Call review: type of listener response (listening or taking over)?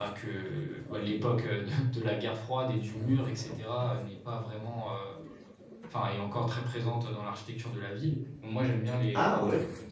listening